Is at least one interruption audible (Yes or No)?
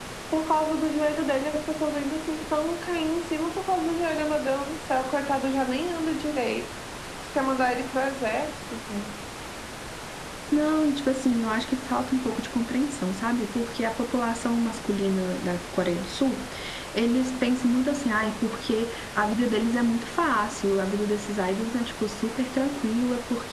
No